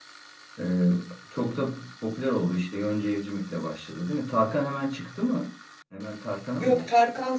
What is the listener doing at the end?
taking over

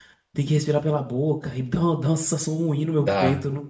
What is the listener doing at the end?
taking over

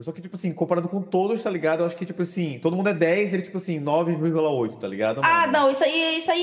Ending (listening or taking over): taking over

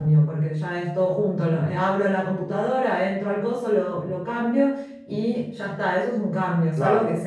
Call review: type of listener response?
listening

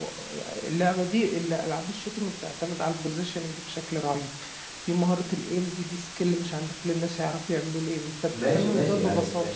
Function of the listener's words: taking over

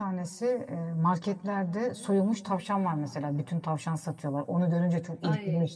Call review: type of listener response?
listening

